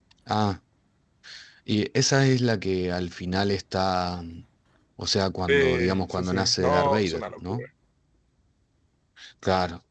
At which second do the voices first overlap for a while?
5 s

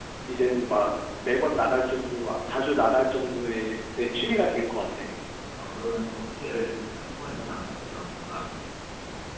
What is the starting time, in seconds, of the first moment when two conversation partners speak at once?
none

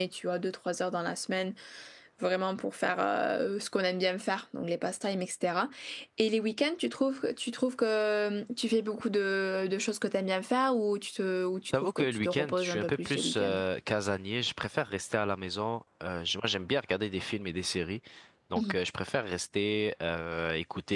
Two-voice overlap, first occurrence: 12 s

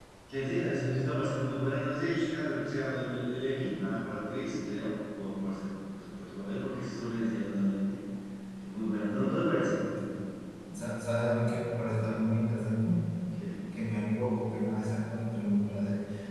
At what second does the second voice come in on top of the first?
none

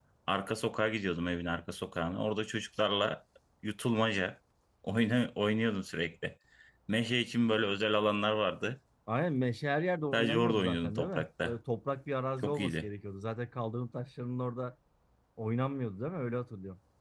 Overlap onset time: 10 s

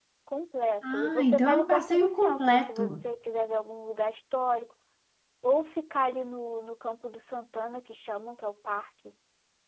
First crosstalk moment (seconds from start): 1 s

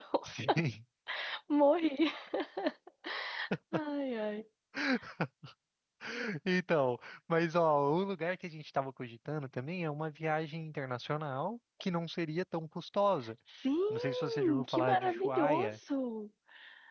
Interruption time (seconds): 14 s

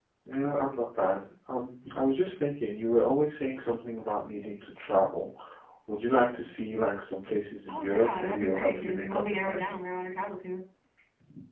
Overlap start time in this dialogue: 8 s

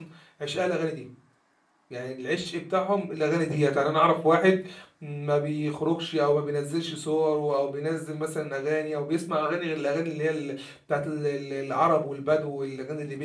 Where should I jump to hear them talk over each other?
none

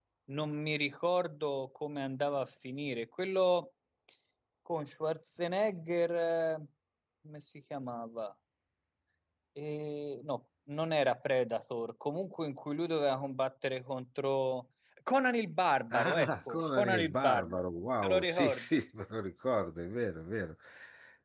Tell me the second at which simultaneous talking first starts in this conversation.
16 s

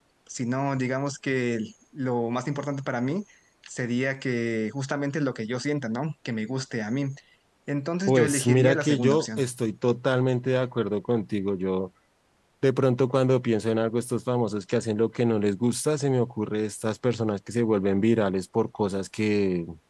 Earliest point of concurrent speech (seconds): 8 s

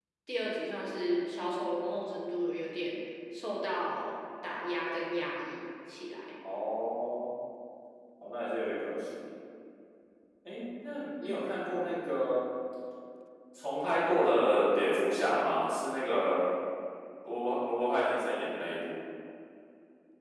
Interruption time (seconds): none

